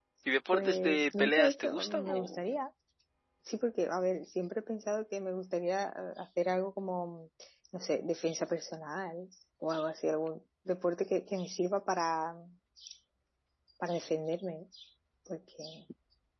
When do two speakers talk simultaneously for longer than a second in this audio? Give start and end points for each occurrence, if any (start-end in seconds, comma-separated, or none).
0.5-2.4